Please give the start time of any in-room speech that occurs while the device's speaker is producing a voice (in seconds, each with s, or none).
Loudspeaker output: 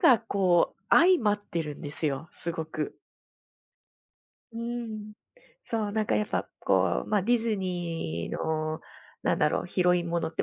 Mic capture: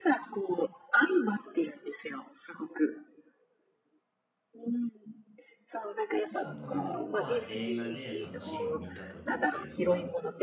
6.3 s